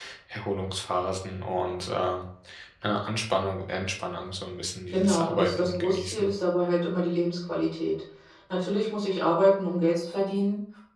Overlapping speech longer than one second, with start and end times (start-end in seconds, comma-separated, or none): 4.9-6.3